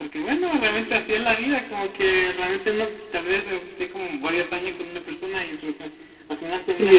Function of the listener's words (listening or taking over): taking over